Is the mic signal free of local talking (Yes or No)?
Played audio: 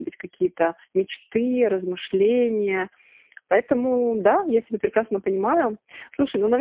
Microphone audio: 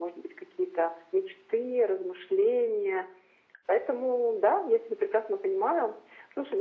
Yes